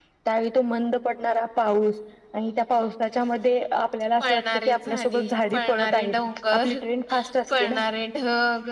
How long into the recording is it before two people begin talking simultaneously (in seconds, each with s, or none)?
4.2 s